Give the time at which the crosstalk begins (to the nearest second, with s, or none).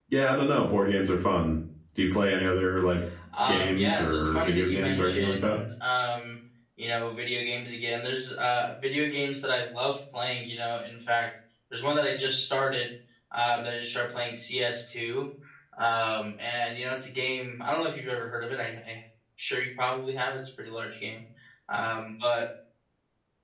3 s